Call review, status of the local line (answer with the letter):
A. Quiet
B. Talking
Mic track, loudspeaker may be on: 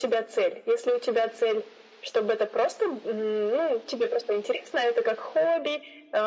A